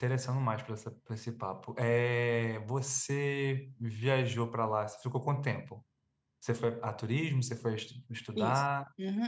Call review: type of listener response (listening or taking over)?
taking over